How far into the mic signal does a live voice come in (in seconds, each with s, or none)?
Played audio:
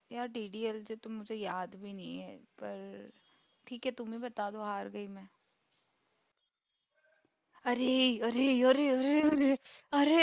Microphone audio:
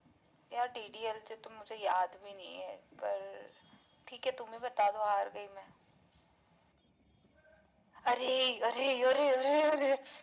none